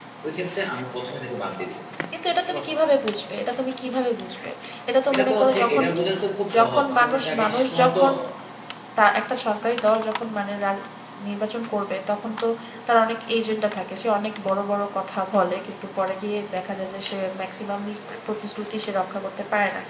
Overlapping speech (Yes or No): Yes